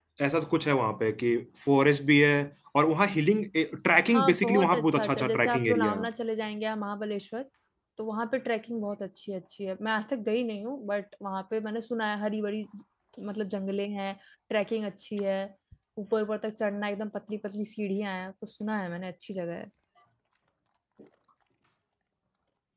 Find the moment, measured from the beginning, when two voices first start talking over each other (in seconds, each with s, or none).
4.1 s